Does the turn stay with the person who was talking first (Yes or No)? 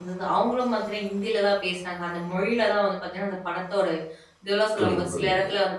Yes